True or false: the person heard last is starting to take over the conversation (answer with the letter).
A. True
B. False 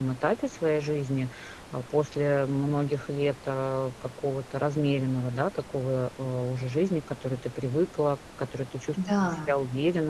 B